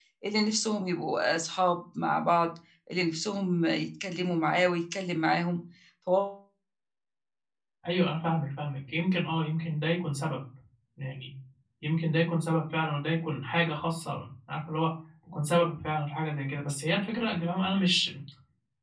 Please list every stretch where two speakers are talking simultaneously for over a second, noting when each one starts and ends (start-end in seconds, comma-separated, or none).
none